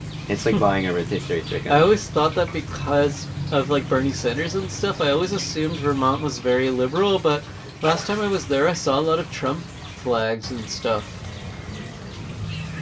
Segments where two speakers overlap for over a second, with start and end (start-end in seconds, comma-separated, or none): none